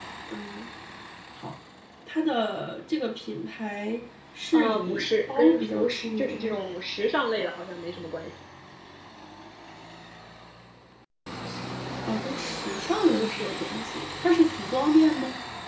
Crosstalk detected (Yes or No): Yes